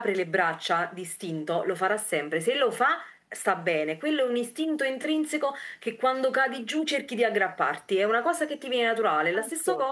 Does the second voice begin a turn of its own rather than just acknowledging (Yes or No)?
No